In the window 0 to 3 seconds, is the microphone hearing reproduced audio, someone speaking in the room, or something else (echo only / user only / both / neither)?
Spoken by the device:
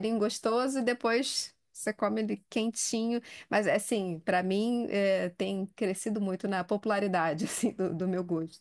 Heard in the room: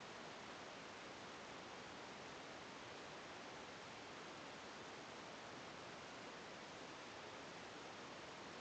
neither